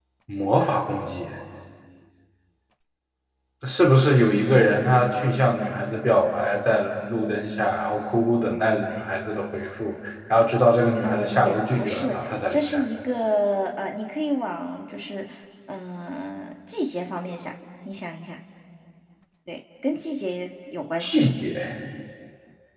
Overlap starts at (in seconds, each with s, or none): 11.0 s